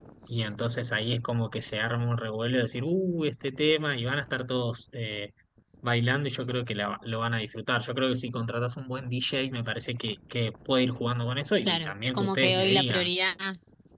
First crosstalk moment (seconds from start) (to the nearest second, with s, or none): 12 s